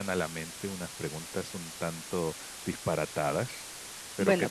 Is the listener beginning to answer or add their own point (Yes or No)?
Yes